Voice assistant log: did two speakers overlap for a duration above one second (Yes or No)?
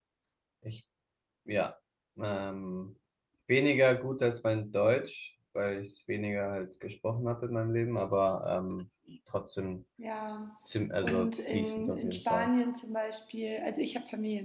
Yes